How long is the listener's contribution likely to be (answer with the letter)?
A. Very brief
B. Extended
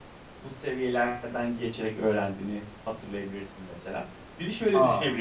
A